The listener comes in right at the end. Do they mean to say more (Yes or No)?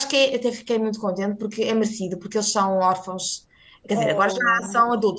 No